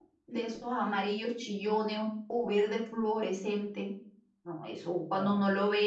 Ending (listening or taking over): listening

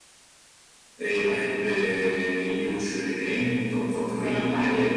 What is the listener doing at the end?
listening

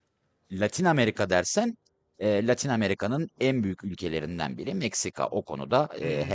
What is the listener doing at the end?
taking over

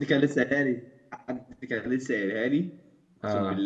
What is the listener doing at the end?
listening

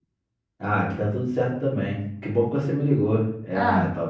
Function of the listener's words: listening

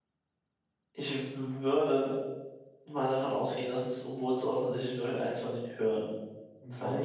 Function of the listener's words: taking over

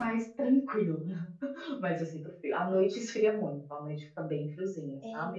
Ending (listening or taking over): listening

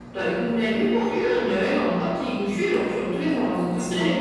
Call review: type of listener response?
taking over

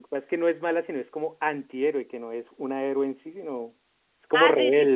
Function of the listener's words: taking over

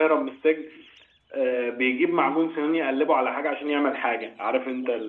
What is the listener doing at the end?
taking over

